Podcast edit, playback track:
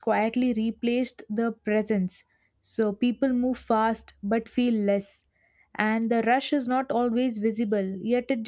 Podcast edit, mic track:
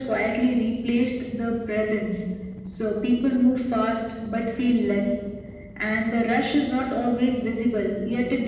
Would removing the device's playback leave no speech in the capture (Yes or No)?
Yes